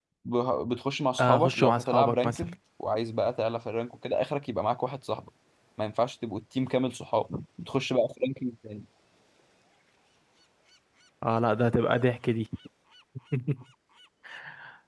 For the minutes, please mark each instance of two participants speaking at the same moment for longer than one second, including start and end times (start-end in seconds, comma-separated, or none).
1.2-2.5